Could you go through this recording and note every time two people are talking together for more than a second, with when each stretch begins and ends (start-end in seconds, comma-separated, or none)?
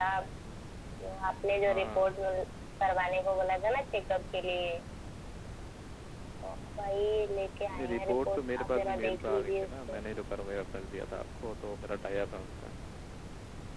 7.7-10.0